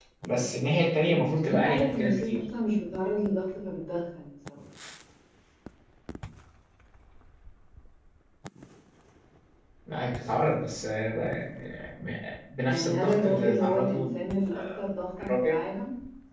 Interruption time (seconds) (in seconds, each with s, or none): 1.0 s